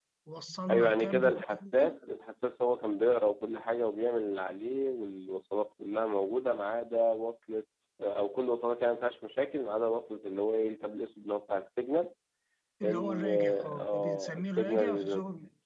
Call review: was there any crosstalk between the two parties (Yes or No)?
Yes